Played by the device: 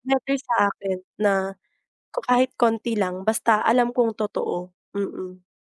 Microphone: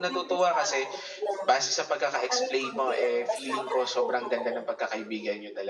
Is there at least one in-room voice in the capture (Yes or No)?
Yes